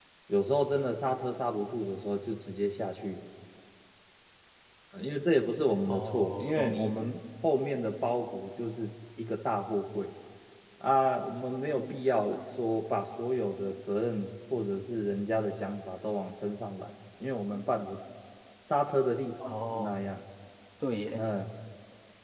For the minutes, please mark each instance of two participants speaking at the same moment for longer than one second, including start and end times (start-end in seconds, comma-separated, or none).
5.9-7.2